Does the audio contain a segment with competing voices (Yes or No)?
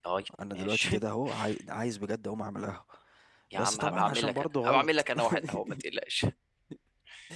Yes